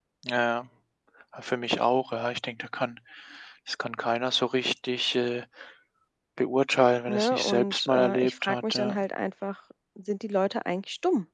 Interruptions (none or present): present